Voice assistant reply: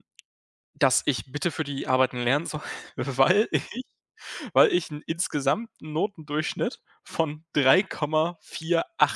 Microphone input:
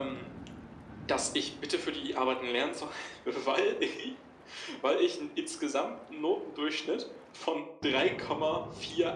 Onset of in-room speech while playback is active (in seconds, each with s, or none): none